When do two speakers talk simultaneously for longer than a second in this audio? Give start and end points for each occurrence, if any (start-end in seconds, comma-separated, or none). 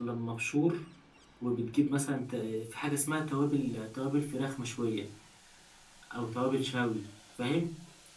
none